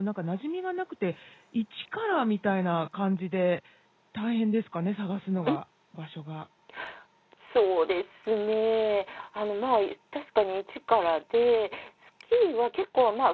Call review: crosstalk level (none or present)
none